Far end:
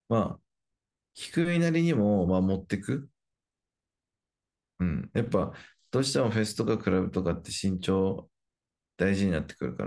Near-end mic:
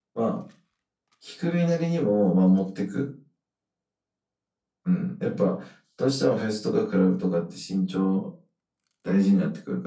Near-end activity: none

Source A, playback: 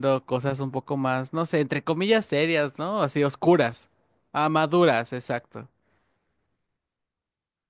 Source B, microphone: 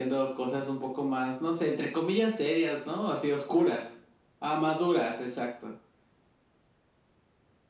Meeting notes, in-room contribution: none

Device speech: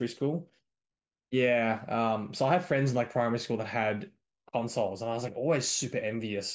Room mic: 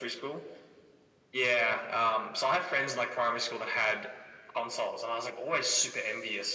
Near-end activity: none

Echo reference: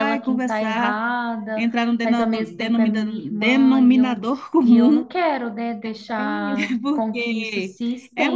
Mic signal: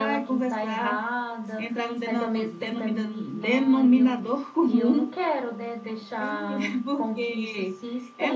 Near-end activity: none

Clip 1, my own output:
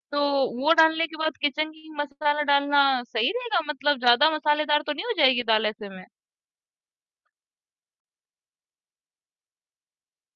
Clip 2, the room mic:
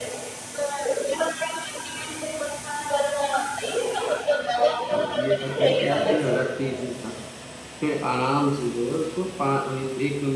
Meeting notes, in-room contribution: present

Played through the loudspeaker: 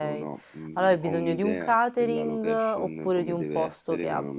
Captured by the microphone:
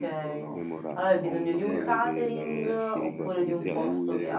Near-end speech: present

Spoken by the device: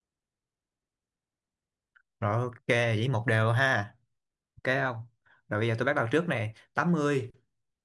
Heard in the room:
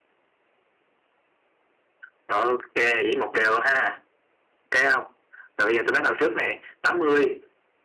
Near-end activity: none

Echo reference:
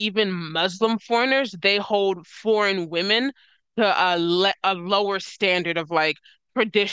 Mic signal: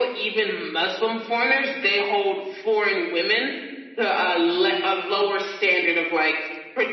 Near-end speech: none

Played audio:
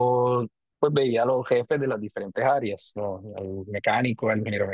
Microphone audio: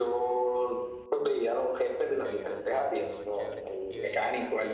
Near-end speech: present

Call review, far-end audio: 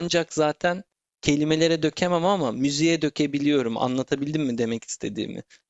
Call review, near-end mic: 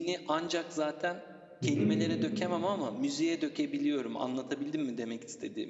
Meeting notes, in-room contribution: present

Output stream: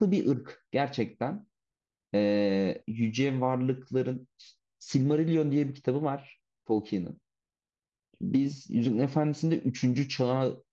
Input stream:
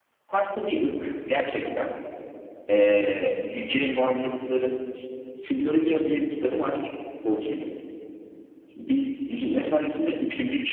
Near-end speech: none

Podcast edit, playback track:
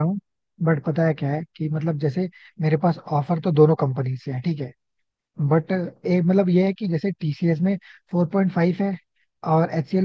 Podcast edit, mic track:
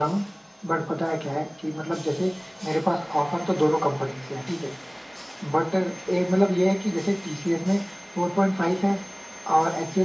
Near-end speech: none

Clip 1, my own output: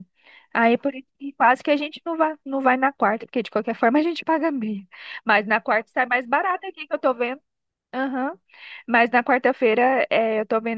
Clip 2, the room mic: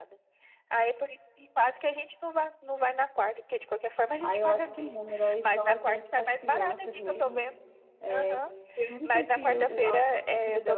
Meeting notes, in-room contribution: present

